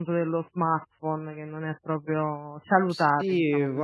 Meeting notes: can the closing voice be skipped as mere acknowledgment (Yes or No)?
No